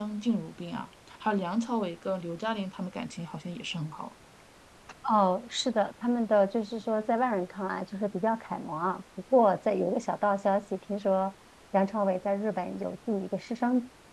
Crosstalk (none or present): none